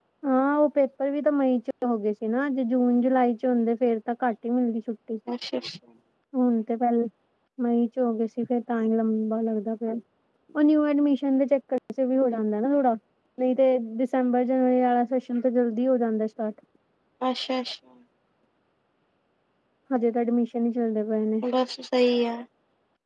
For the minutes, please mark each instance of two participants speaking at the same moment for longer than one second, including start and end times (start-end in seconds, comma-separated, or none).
none